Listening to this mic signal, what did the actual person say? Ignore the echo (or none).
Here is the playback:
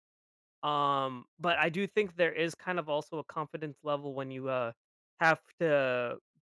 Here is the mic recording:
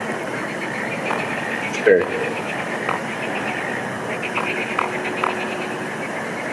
Sure.